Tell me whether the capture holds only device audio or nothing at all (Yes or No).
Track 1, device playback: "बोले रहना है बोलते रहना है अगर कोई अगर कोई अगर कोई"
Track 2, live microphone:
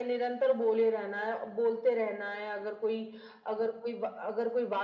Yes